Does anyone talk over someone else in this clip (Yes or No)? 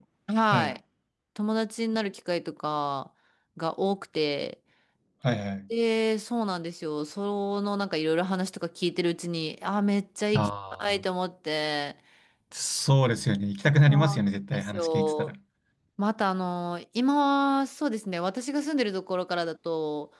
Yes